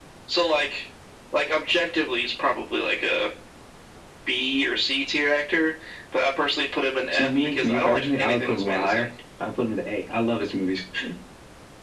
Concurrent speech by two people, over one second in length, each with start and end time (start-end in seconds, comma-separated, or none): 7.1-9.1